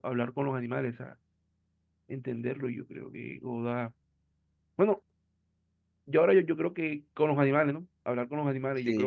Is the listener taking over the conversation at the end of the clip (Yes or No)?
Yes